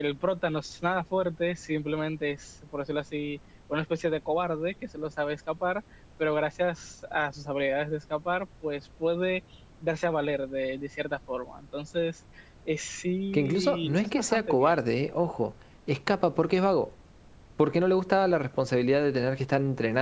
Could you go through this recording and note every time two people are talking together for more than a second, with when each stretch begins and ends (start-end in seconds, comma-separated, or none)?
13.3-14.8